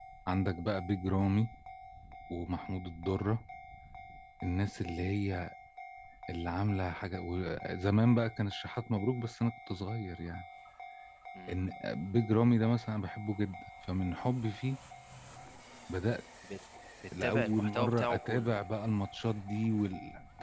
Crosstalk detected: Yes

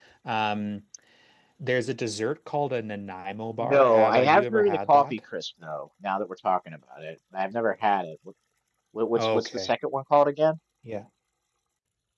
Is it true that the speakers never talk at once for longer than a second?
No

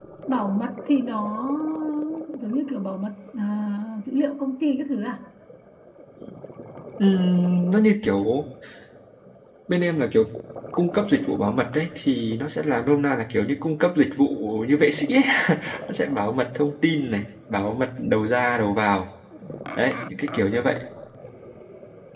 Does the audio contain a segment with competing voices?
No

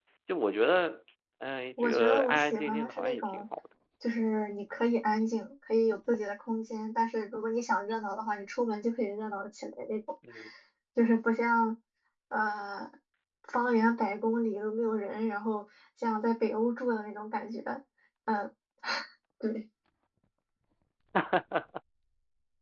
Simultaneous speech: Yes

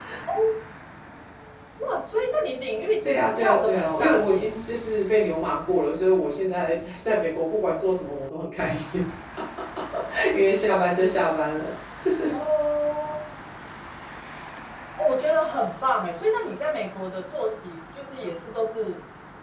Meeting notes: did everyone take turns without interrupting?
No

